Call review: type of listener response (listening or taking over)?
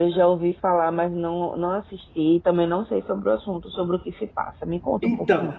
taking over